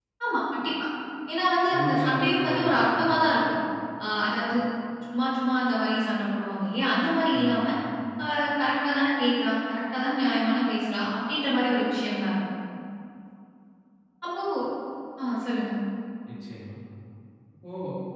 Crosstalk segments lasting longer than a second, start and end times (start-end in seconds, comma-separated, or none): 1.7-3.5